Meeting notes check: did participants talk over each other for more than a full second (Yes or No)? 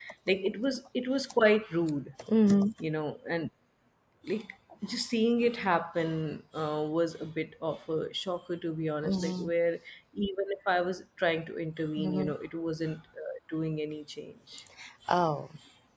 No